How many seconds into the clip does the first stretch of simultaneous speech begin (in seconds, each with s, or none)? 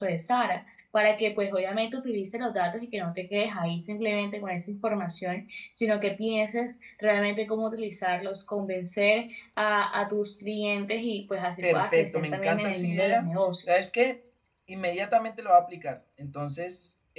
11.6 s